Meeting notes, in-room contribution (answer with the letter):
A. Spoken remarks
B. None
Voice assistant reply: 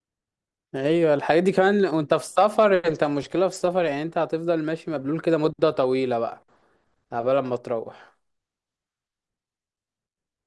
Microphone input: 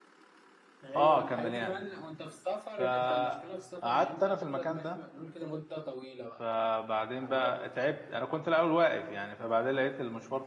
A